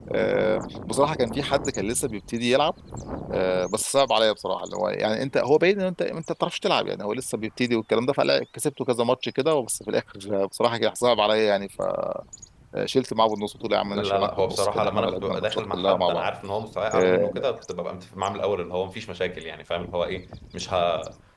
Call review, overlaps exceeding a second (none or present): present